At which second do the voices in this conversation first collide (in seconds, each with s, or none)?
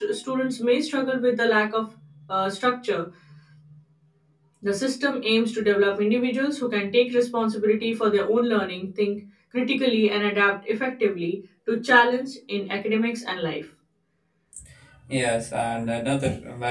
none